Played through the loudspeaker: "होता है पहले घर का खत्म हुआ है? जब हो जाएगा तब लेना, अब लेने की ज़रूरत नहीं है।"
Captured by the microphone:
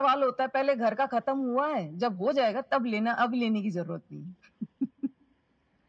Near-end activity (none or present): none